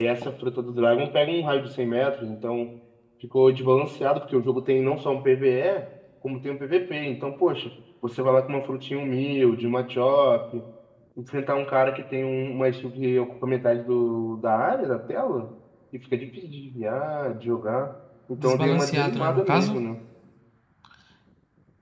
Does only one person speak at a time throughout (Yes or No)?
No